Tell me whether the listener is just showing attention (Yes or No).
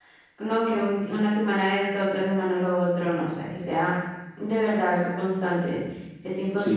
No